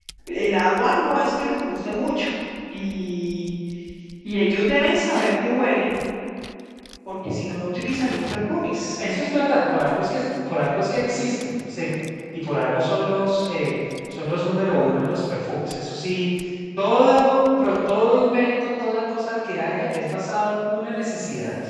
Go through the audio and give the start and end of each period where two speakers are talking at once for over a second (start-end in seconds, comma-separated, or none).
none